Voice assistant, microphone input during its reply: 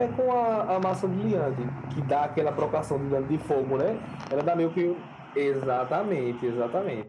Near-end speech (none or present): none